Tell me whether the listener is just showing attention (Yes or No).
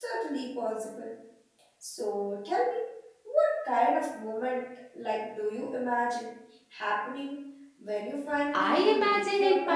No